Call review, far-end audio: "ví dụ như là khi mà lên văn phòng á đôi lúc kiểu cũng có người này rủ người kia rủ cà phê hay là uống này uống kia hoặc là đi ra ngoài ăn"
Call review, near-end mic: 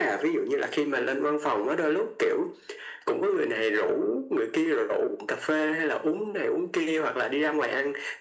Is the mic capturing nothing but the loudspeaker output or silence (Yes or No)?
Yes